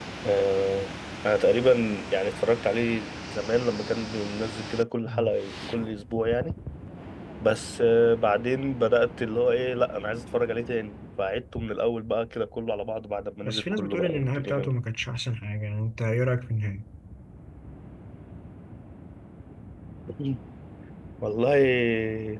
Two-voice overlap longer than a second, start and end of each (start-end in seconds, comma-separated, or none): 13.4-14.7